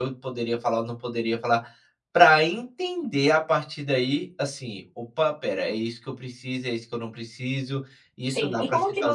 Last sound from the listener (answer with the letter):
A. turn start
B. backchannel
A